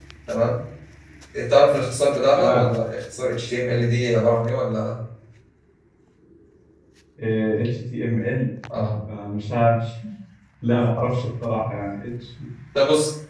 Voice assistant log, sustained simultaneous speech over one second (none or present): none